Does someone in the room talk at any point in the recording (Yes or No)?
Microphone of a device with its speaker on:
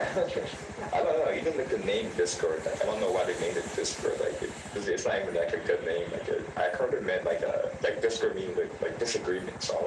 No